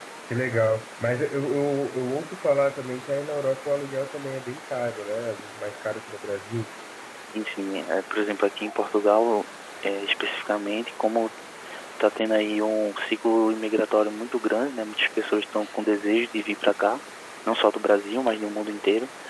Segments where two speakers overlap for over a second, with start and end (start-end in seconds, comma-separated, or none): none